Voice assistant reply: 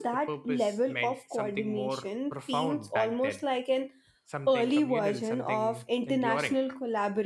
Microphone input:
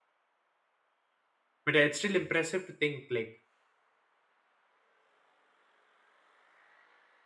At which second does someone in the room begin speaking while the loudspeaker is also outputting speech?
2 s

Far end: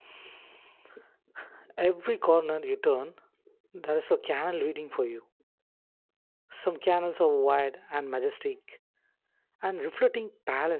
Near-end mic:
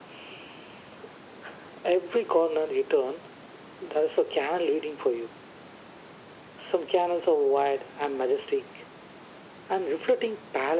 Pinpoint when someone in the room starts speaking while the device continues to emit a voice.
none

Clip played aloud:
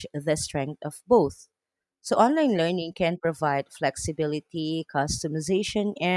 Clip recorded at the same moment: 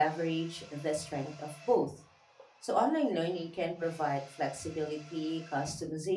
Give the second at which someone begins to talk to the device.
none

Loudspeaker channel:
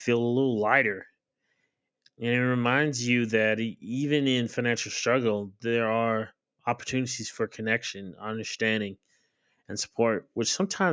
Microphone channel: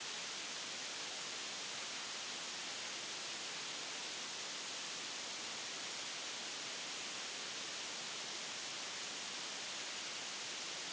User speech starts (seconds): none

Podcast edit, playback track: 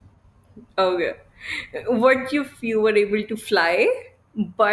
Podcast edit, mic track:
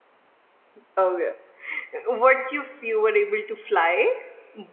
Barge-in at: none

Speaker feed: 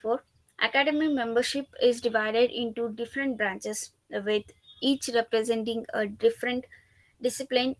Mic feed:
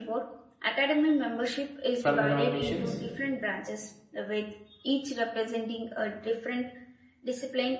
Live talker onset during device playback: 2 s

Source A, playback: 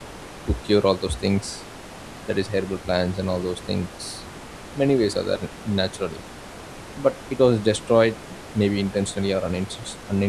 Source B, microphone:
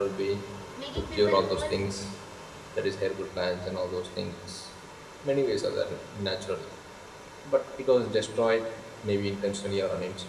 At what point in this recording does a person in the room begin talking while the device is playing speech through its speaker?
1 s

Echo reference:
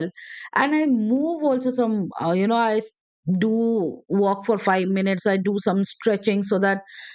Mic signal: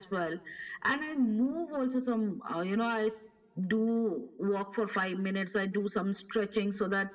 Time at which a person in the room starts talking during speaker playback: none

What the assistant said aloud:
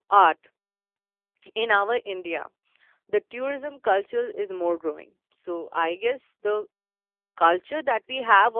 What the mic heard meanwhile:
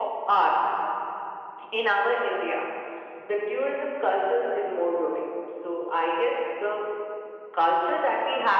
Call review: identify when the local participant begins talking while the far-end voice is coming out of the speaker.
none

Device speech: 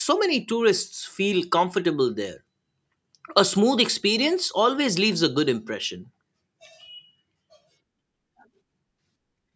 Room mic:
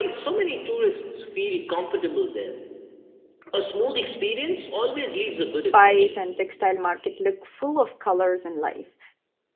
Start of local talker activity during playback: 5 s

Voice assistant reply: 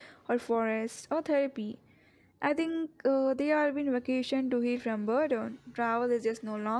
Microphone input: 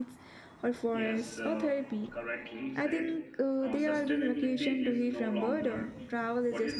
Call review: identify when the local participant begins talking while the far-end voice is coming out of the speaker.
1 s

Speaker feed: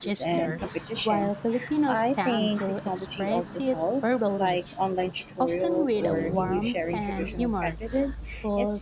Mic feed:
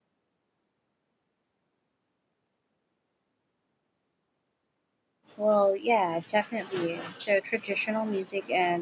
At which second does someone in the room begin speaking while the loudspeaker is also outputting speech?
5 s

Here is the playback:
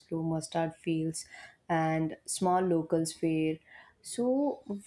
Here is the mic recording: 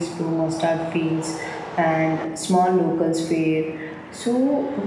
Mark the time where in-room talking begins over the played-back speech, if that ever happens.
none

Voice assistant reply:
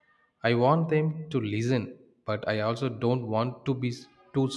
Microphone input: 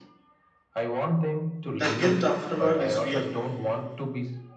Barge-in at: 2 s

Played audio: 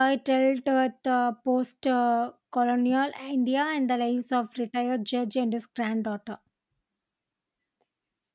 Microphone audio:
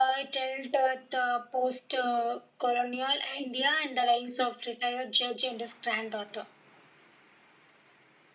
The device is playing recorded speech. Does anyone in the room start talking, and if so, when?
none

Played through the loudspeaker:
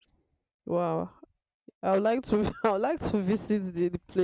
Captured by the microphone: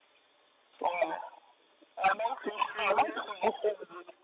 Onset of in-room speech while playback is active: 3 s

